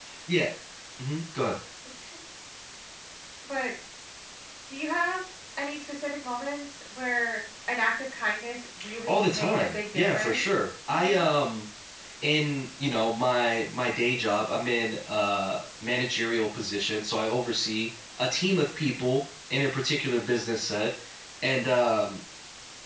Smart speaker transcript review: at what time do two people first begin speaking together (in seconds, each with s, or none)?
8.8 s